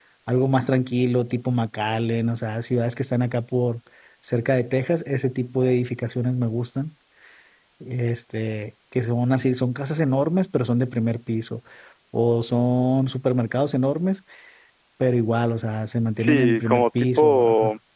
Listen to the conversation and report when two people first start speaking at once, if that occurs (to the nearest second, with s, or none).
16 s